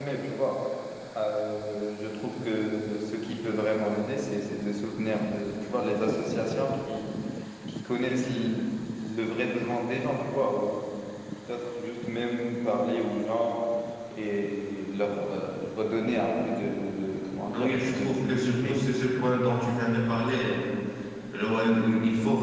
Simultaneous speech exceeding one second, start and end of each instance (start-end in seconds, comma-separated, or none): 17.5-18.8